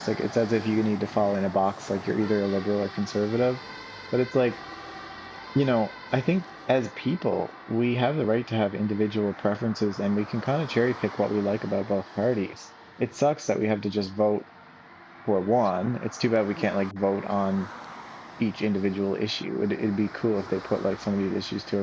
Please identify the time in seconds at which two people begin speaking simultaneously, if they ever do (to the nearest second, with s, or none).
none